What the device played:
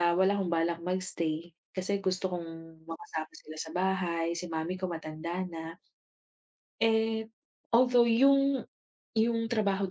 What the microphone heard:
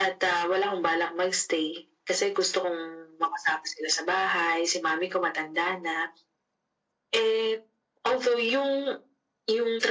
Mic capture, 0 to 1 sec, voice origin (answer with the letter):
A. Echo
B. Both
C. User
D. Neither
A